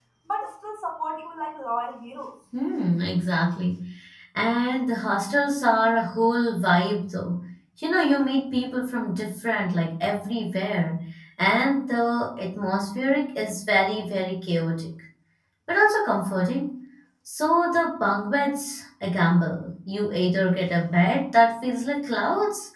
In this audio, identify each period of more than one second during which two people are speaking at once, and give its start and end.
none

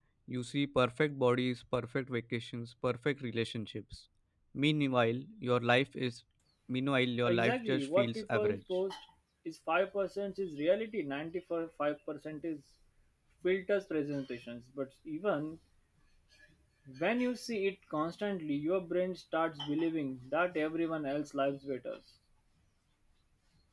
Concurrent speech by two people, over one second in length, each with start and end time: 7.2-8.6

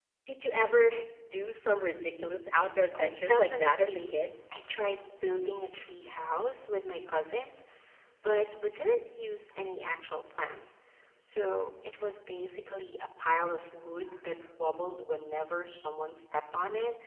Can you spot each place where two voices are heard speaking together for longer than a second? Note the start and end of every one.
2.9-4.2

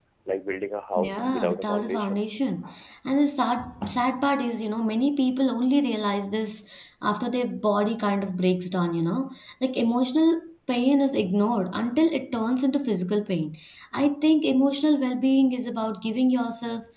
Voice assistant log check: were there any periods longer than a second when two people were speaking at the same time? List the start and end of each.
1.0-2.2

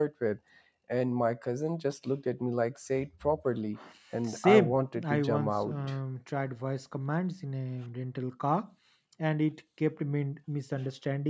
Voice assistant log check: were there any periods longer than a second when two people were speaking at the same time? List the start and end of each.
4.3-6.0

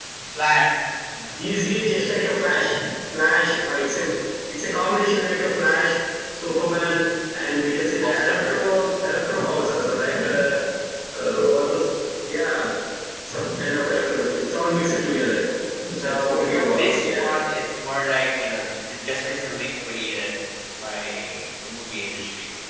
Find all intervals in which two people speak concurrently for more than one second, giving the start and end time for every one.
16.0-17.2

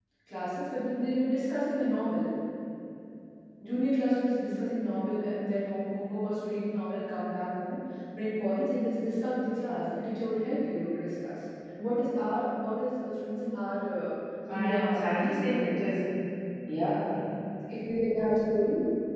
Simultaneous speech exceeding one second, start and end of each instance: 14.5-15.7

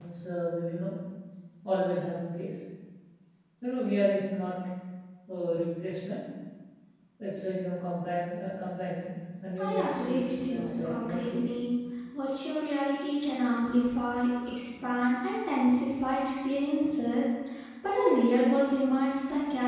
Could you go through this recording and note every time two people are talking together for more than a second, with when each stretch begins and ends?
9.6-11.5

